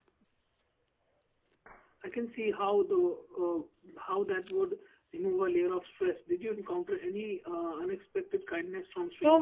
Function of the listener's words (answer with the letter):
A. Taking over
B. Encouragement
A